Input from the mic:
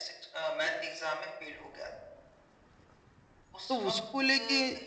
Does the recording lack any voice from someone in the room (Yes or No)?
No